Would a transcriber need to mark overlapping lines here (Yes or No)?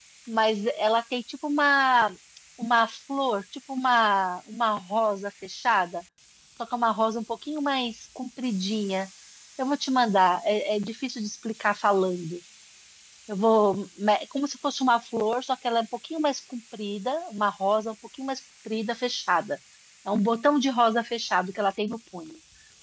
No